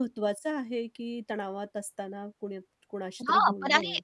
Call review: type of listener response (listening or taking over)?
taking over